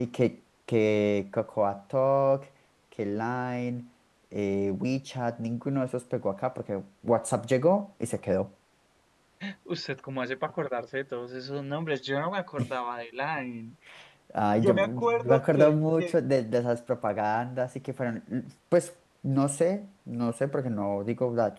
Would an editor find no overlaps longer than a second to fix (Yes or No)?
No